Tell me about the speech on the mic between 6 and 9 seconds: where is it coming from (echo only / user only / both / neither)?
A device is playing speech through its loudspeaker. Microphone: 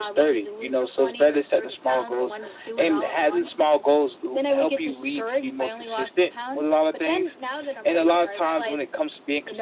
echo only